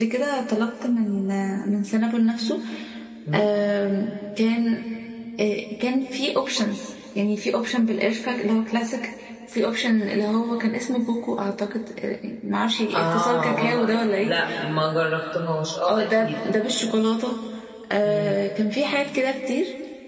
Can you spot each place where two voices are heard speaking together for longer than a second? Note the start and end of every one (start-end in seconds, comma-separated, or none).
12.9-14.3